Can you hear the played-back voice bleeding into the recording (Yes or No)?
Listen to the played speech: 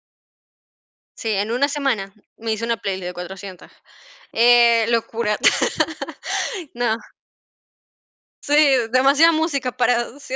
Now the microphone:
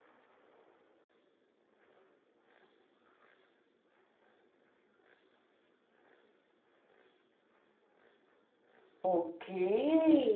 No